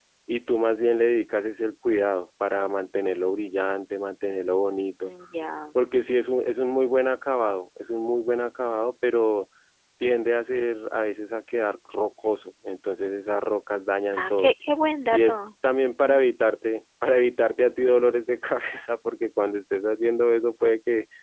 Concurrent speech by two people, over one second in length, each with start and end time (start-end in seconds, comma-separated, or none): none